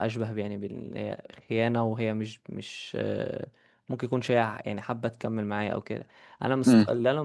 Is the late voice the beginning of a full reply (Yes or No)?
No